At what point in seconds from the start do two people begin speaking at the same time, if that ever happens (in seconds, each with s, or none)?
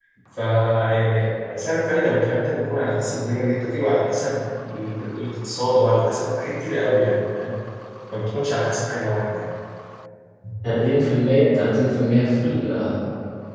none